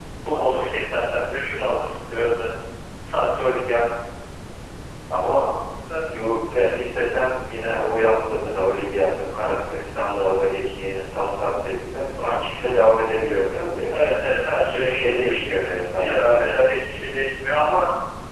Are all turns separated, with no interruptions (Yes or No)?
No